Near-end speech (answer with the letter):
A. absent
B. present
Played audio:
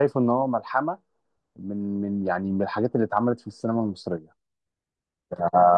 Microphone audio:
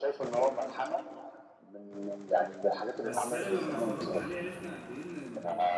B